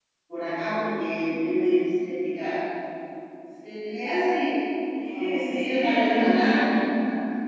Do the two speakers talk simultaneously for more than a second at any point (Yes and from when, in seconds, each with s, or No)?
Yes, from 5.2 s